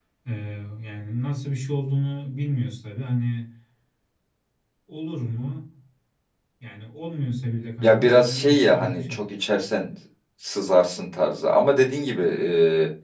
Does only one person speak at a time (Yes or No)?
No